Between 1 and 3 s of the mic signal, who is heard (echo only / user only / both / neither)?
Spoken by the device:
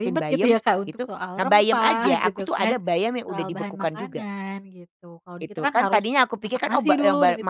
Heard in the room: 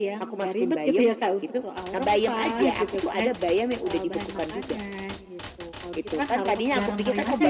echo only